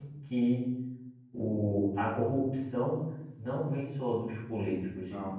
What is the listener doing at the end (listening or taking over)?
listening